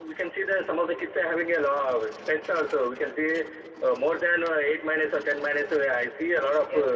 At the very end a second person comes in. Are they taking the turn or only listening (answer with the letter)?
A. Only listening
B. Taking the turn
B